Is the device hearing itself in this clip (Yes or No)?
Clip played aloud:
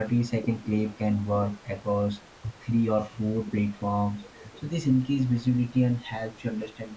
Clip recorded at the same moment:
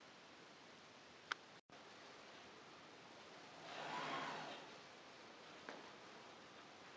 No